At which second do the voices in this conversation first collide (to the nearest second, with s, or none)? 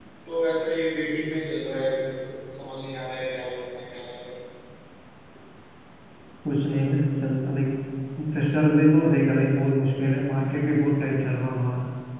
none